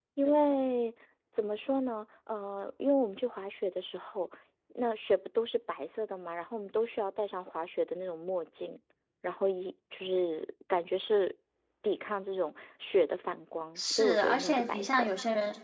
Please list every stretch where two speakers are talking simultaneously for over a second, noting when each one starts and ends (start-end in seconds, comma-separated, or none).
13.8-15.1